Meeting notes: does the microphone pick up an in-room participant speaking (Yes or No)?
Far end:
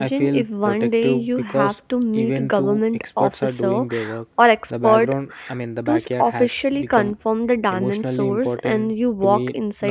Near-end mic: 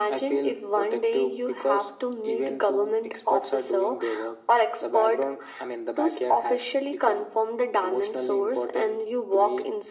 No